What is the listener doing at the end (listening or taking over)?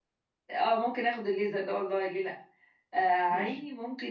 listening